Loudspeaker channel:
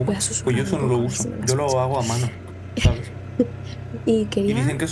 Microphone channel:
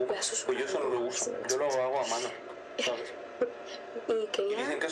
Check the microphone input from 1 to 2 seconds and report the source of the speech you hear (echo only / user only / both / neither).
echo only